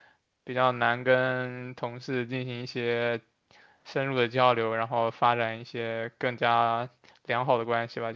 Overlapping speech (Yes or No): No